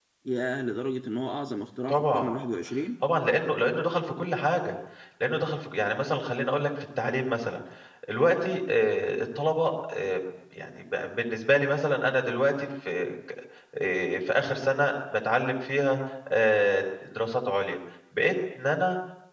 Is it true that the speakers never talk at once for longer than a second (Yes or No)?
Yes